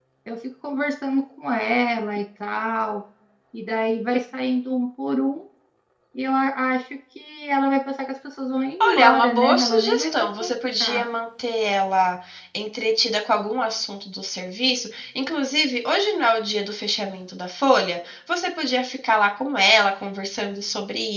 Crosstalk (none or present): present